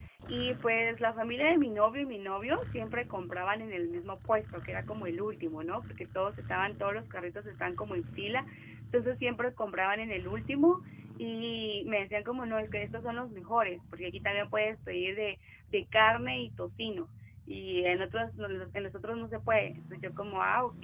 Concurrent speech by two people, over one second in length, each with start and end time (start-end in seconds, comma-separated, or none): none